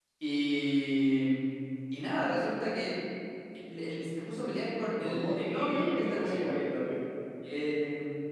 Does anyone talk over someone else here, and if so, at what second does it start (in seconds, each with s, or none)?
5.0 s